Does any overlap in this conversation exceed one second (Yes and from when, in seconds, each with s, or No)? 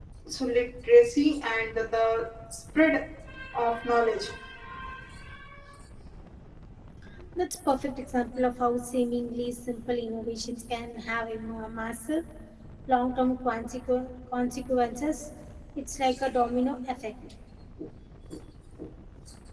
No